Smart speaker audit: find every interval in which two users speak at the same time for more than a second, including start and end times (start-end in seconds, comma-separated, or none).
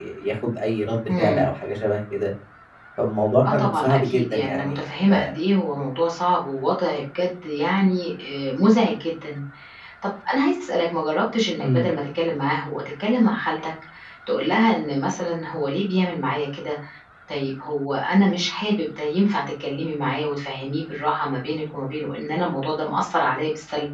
3.5-5.1